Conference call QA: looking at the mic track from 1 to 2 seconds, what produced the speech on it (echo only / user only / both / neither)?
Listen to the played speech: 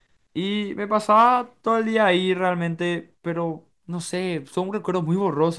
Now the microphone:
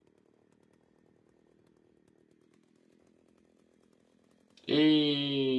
neither